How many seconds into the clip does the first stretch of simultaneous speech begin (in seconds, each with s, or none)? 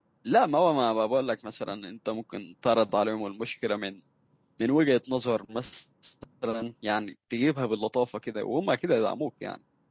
none